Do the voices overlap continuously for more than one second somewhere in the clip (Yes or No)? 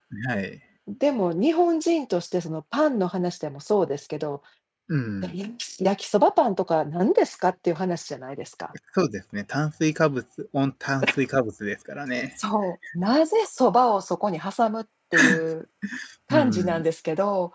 No